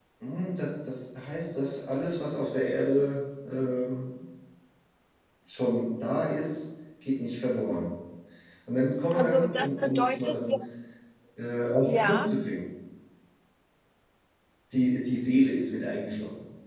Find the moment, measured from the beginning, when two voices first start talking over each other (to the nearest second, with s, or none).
9 s